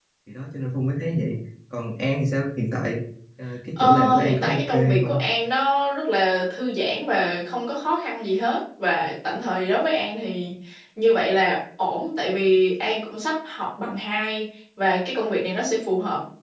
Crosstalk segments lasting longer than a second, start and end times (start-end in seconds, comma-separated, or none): 3.8-5.2